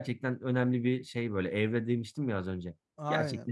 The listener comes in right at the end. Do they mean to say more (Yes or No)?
Yes